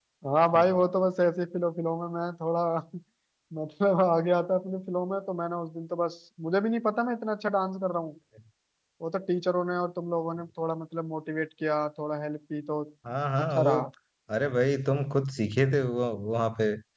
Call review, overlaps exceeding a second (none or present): none